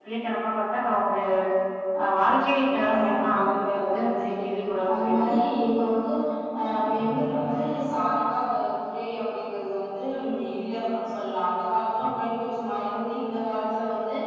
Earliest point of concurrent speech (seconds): 3 s

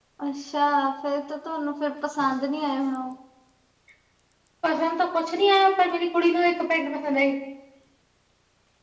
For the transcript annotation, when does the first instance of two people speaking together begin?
none

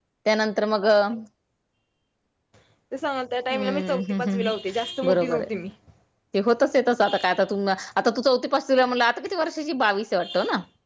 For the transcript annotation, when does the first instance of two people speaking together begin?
4 s

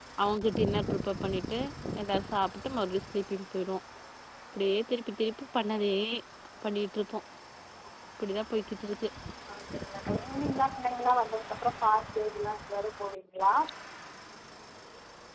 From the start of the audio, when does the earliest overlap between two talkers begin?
none

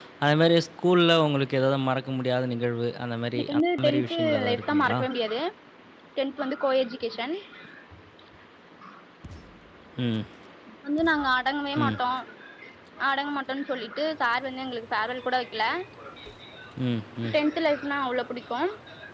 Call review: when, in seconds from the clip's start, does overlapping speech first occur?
3 s

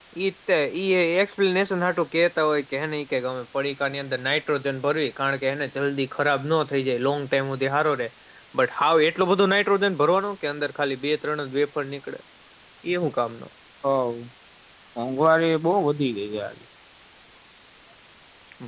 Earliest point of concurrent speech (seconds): none

